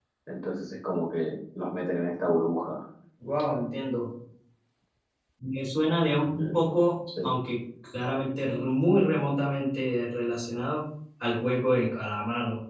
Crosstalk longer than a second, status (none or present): none